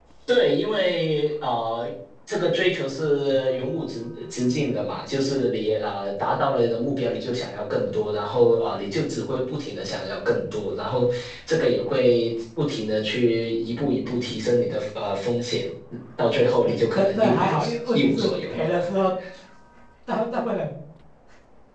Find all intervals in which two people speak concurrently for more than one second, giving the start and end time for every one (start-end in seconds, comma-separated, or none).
16.6-18.7